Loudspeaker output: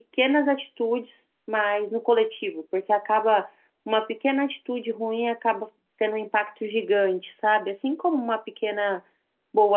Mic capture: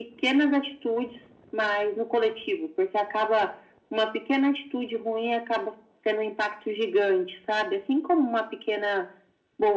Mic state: echo only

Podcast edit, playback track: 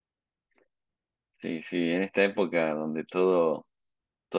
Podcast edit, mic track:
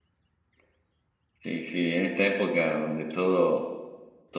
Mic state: echo only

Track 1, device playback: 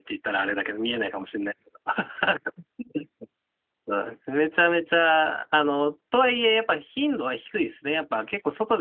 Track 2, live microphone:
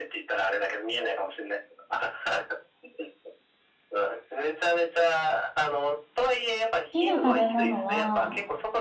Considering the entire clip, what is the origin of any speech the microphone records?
both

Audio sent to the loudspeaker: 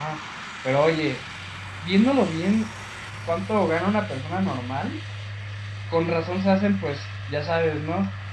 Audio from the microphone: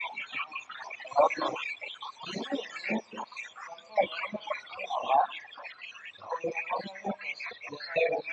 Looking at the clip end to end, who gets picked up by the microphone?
echo only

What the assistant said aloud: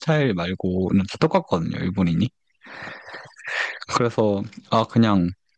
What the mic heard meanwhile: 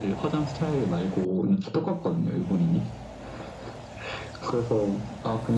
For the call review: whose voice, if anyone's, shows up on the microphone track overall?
echo only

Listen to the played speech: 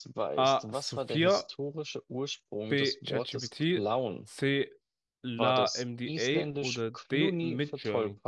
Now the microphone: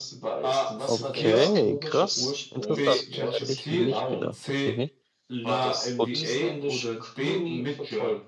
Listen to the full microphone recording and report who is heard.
both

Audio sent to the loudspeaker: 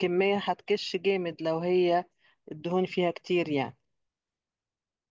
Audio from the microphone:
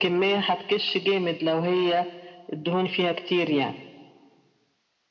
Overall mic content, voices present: echo only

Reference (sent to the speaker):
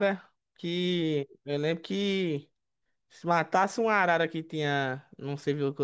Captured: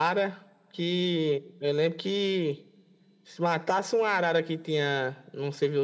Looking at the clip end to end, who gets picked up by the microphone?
echo only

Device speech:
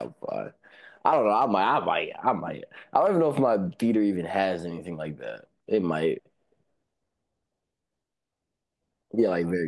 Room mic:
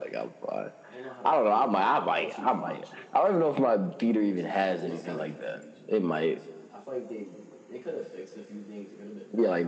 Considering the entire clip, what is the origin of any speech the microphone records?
both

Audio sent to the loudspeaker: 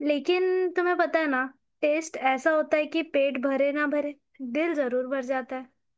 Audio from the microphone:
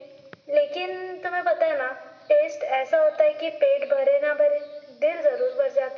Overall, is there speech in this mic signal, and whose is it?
echo only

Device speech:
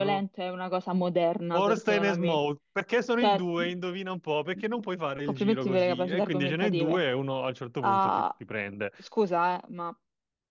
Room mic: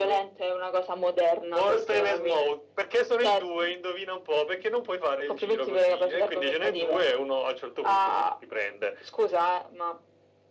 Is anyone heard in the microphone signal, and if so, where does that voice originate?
echo only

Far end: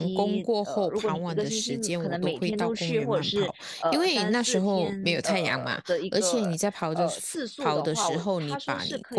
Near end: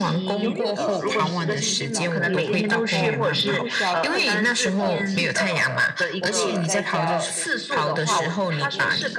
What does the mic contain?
both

